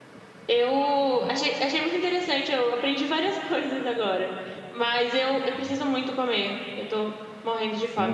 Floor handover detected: Yes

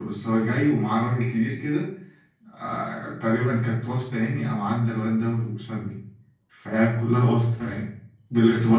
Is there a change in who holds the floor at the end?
Yes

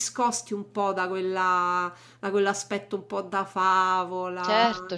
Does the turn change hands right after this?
Yes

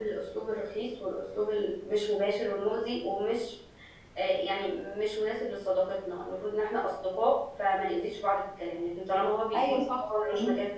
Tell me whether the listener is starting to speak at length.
No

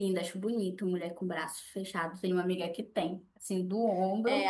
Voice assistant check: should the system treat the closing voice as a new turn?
Yes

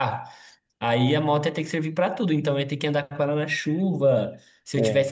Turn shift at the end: No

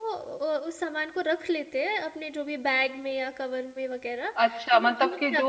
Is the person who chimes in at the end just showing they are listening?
No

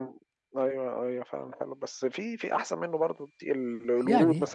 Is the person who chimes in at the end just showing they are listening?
Yes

